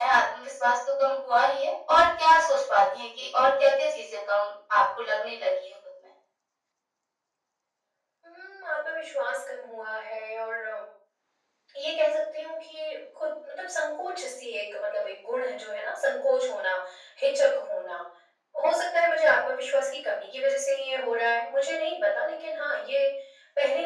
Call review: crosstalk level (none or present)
none